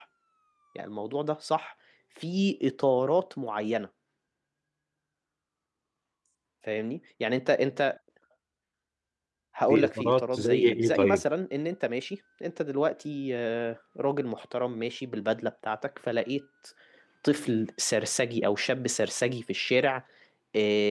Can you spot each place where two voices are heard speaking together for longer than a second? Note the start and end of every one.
9.7-11.2

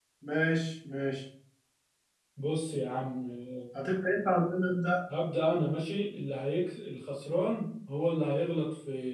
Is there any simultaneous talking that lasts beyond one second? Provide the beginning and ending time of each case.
none

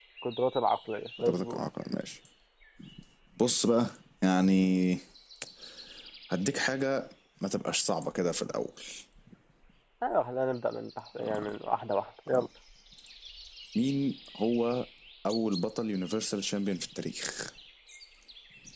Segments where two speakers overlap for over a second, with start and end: none

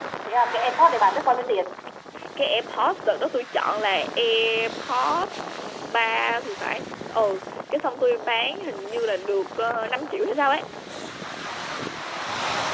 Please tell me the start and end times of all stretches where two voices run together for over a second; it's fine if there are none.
none

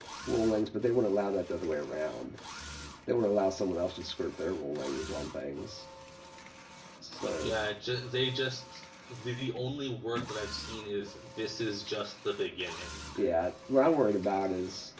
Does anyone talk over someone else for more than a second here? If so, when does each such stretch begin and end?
none

